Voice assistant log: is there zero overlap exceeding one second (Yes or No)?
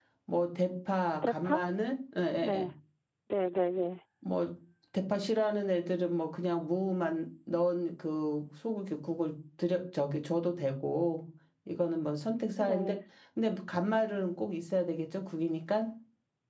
Yes